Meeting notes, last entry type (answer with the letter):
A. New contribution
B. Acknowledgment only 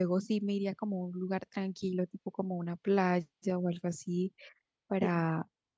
B